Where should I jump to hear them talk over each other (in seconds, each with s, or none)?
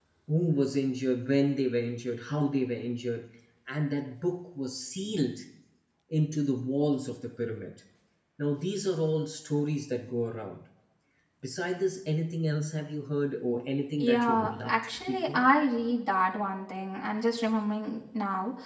14.0 s